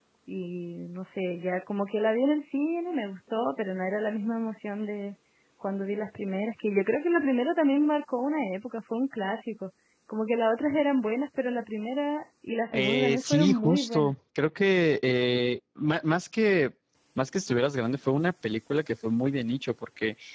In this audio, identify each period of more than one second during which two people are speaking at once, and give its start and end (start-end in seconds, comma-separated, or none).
12.7-14.1